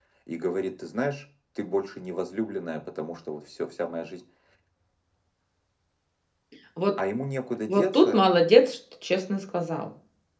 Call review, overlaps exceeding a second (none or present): none